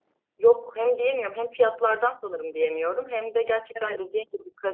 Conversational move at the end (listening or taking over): listening